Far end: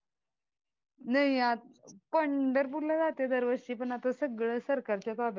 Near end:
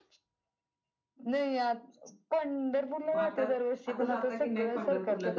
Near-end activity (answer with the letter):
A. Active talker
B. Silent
A